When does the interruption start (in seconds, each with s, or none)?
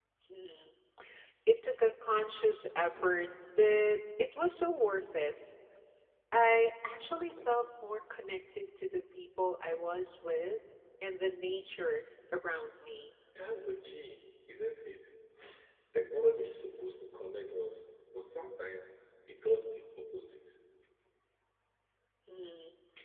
none